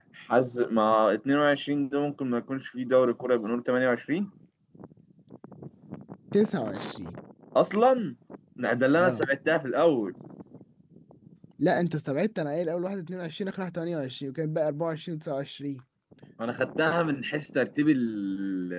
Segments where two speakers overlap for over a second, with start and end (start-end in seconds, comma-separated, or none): none